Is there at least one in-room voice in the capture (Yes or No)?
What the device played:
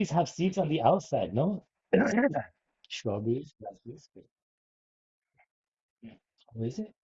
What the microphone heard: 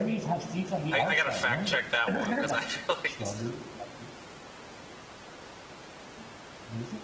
Yes